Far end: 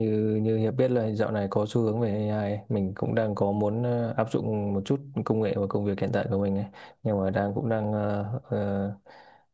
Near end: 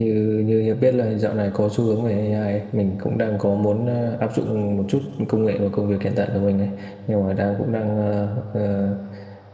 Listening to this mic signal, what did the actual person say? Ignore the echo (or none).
none